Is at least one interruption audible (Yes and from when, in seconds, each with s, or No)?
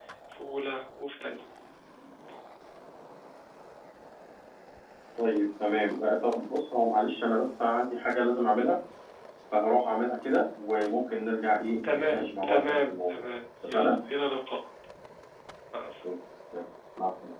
Yes, from 11.8 s